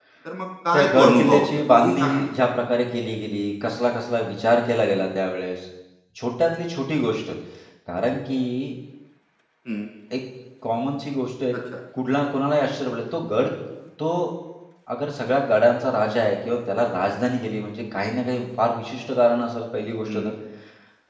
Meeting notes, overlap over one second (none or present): present